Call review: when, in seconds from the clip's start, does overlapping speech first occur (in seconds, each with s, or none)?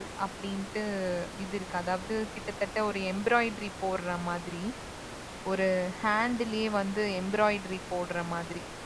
none